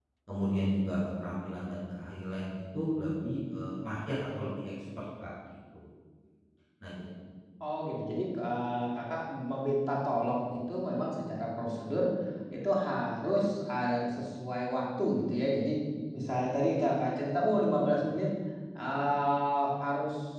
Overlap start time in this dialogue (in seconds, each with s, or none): none